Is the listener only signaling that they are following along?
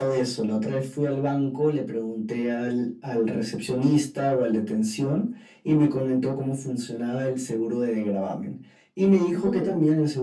Yes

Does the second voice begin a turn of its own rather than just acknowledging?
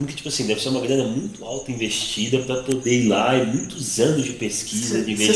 Yes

